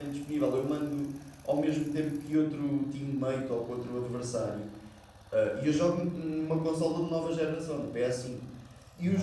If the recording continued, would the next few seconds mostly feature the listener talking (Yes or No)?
No